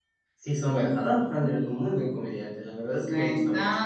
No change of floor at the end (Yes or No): No